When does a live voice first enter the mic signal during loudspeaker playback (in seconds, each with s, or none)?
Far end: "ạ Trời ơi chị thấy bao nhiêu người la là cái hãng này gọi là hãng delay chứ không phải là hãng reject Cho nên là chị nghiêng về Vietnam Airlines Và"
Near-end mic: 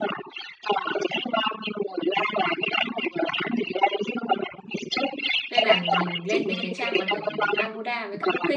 5.5 s